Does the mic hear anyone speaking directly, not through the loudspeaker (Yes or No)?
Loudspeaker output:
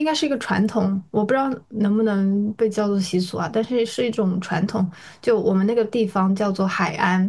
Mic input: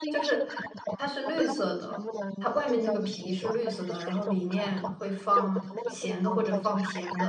Yes